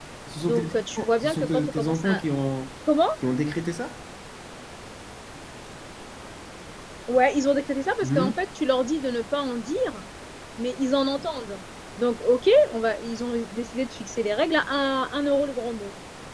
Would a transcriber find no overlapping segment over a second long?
No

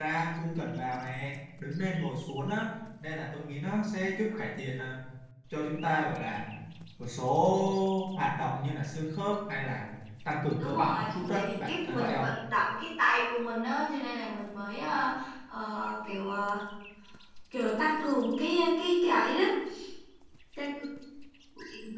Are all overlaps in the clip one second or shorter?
No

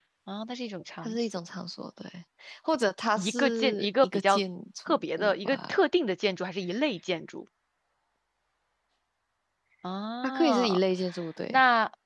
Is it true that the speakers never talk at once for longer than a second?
No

